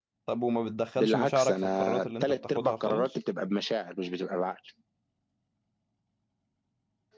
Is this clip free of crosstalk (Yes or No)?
No